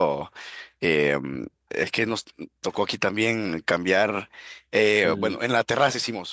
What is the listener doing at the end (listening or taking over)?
listening